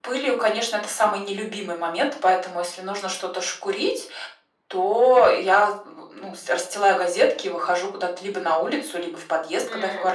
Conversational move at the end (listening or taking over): listening